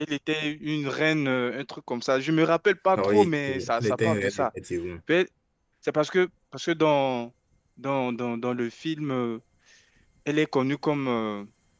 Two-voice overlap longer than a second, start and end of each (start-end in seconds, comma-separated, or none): 3.0-4.5